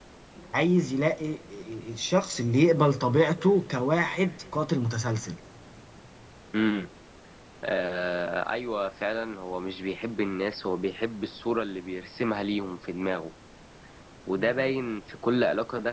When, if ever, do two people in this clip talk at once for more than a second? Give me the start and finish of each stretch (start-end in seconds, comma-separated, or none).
none